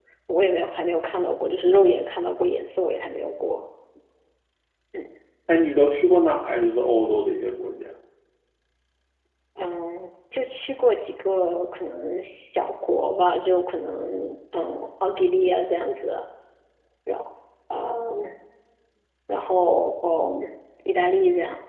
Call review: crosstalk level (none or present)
none